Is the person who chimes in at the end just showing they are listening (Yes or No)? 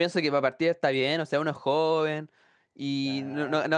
Yes